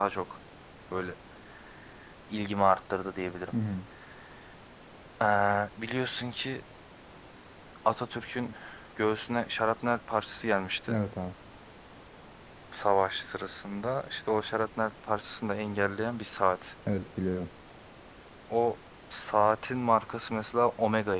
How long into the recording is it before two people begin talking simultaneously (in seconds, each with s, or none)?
none